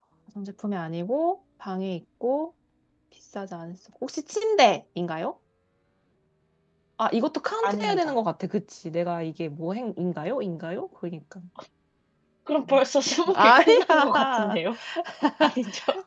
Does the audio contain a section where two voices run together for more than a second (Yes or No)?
Yes